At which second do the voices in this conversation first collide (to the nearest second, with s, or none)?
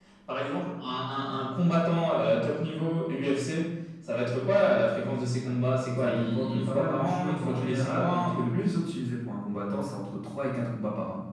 6 s